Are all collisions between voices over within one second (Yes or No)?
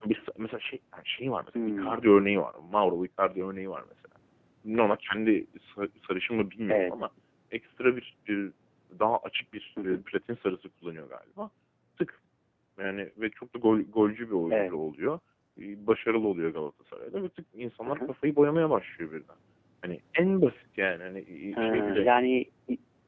Yes